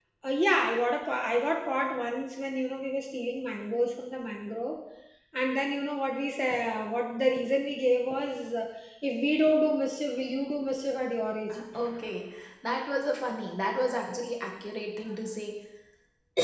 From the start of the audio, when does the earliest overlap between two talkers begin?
none

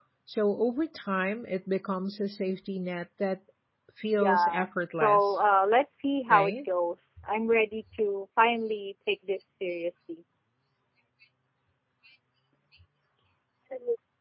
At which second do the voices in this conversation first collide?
4.1 s

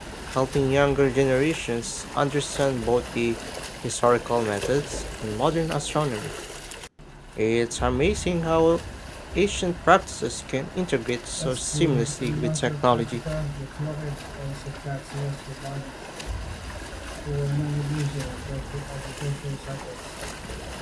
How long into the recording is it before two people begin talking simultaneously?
11.4 s

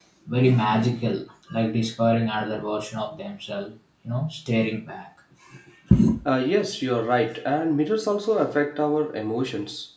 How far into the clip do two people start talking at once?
none

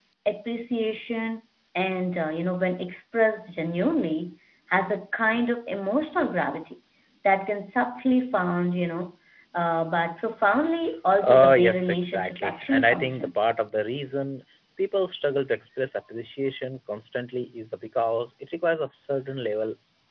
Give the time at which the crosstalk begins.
11.2 s

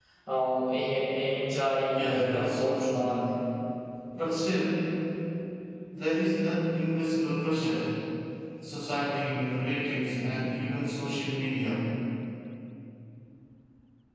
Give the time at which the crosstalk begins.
1.8 s

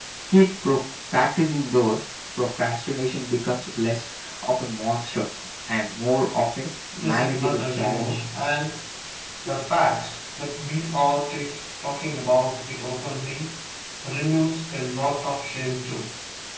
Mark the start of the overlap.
7.0 s

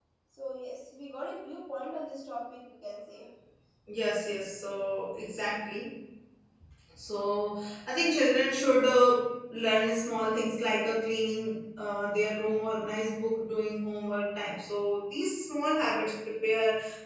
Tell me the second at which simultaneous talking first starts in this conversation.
none

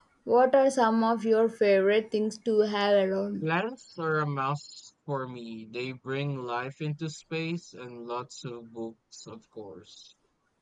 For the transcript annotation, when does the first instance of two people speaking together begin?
none

